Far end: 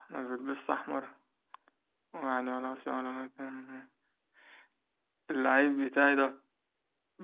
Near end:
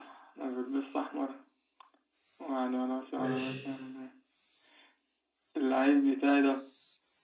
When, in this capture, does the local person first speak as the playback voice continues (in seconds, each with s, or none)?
3.1 s